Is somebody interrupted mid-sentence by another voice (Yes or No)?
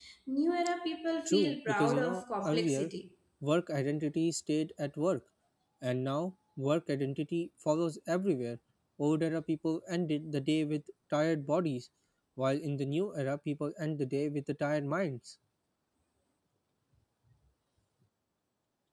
Yes